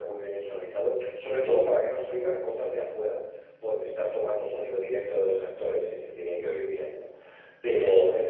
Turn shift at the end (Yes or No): No